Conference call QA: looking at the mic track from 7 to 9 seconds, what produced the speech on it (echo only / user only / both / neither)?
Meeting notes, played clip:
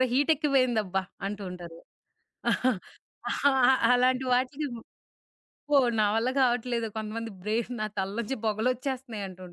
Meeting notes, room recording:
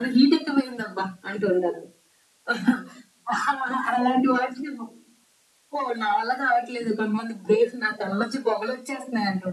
echo only